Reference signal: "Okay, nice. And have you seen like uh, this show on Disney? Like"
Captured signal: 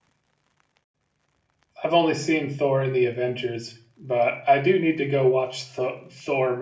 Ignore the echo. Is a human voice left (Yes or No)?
Yes